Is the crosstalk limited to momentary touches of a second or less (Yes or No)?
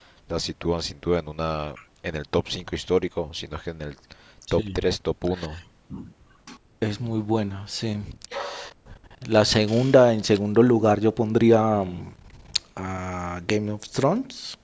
Yes